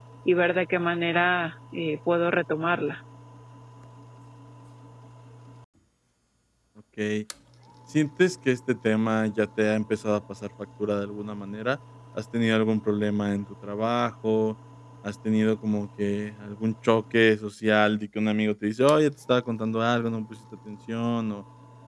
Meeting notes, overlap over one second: none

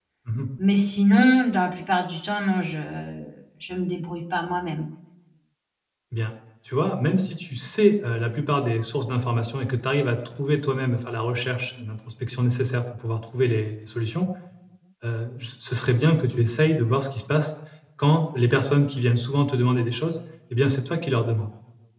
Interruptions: none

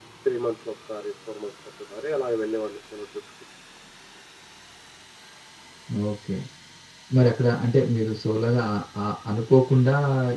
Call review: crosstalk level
none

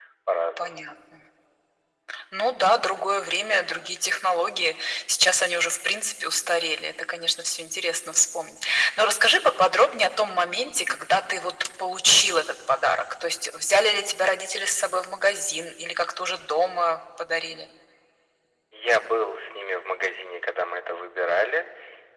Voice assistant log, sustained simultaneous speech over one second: none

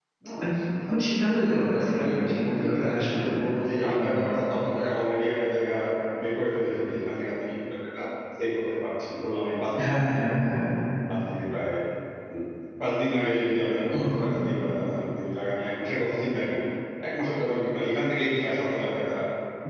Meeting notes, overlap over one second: present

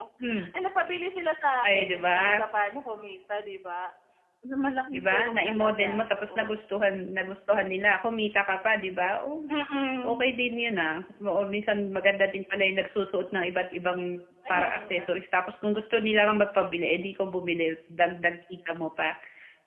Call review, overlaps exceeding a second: present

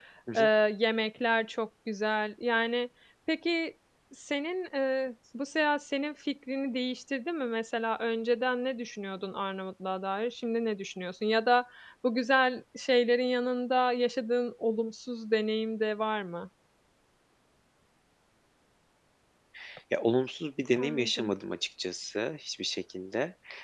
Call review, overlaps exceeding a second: none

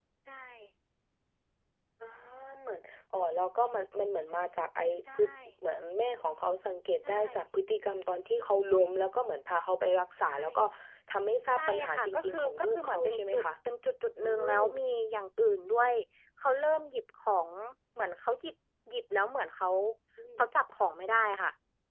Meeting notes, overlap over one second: present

